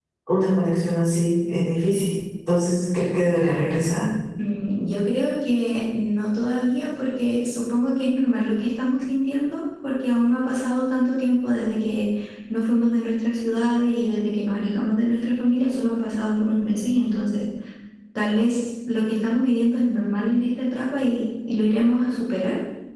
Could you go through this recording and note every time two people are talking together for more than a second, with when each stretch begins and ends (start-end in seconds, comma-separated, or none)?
none